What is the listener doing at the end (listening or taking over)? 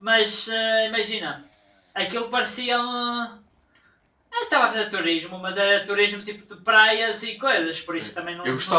taking over